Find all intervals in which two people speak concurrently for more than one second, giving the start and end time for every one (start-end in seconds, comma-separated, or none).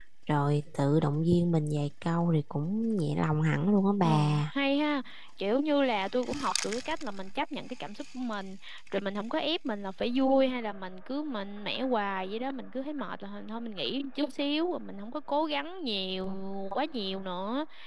none